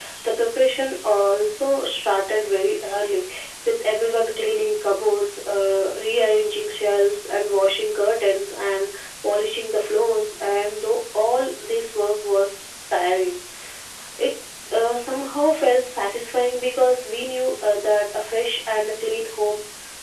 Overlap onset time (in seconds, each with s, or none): none